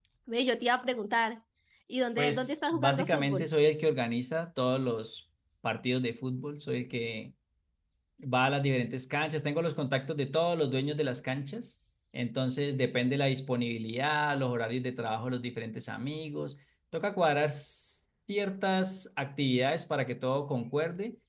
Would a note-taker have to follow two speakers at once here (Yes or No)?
Yes